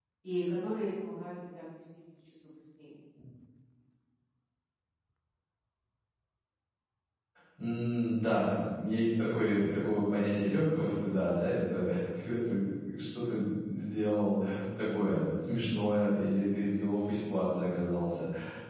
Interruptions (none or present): none